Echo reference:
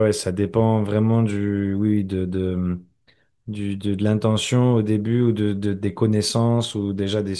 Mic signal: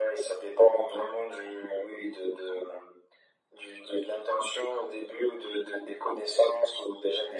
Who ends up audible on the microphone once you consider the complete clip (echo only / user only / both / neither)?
echo only